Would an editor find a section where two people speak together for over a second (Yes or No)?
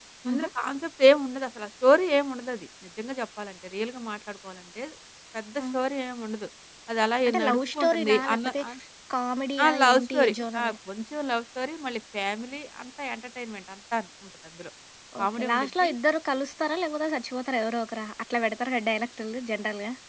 Yes